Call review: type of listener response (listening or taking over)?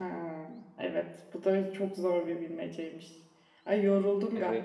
listening